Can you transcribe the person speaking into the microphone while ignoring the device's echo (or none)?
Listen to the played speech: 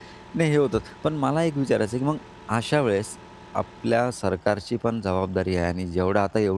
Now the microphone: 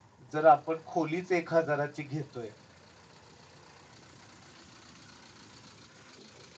जर आपण खोलीच 1,000 ची घेतोय